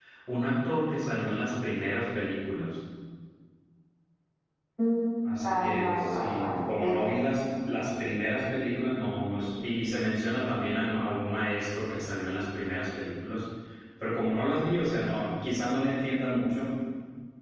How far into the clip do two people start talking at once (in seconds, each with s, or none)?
5.4 s